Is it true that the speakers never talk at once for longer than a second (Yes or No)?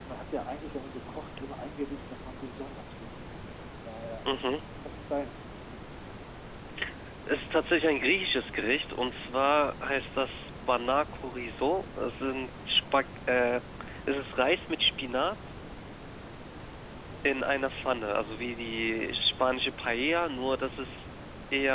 Yes